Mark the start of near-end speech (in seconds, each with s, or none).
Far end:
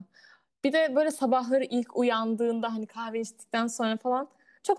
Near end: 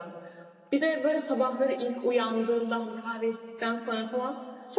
none